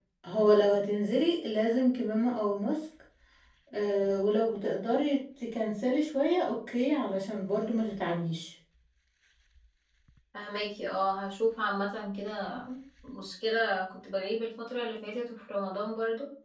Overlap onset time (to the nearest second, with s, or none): none